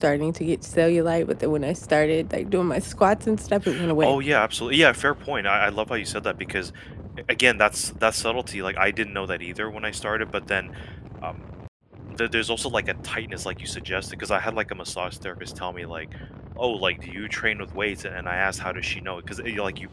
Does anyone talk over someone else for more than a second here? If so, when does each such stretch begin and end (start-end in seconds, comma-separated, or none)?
none